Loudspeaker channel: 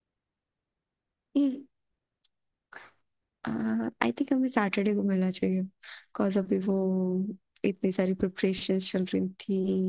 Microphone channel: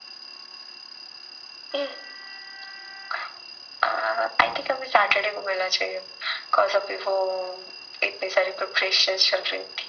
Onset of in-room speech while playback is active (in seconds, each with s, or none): none